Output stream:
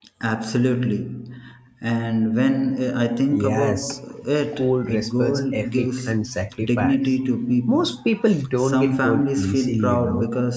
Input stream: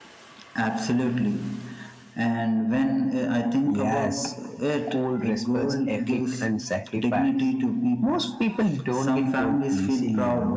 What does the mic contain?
echo only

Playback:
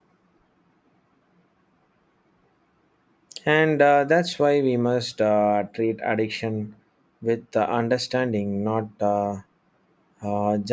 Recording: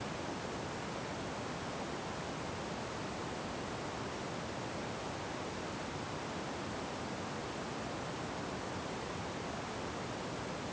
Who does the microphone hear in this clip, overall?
neither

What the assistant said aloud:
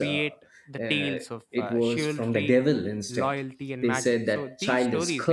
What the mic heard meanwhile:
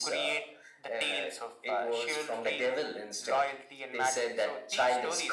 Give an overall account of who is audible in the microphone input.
echo only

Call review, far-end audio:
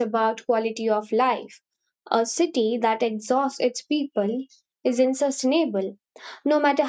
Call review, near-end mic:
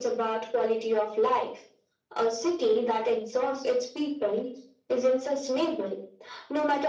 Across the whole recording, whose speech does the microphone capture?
echo only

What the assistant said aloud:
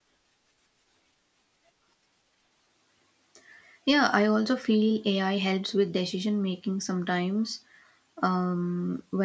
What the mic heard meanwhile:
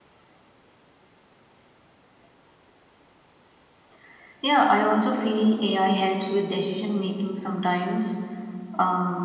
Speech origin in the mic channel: echo only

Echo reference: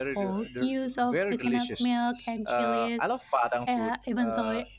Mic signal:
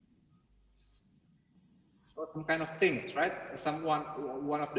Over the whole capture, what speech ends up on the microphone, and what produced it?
user only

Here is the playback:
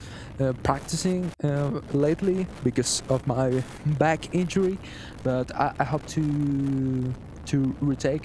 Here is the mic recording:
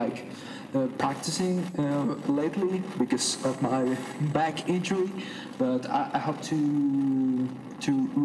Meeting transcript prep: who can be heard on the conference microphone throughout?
echo only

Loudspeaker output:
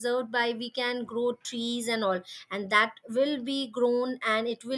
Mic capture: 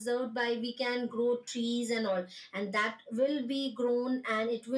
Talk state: echo only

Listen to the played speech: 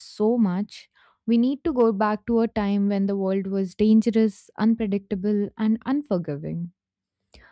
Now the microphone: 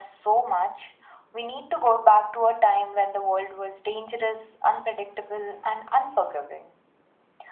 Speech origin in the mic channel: echo only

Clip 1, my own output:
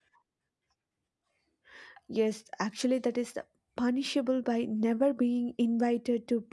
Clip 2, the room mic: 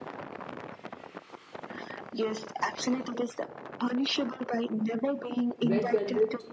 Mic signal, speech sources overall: both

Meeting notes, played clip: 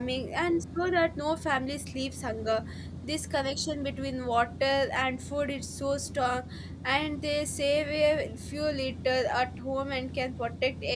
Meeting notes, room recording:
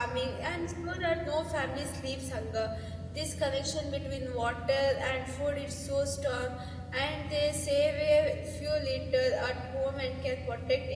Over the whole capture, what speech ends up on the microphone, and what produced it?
echo only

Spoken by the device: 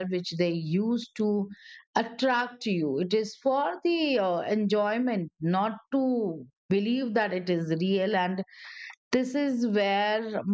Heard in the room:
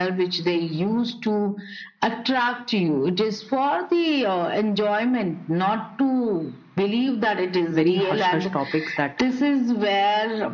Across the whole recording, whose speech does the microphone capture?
both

